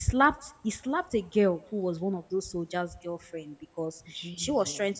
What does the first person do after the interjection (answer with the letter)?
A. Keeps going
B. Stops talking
A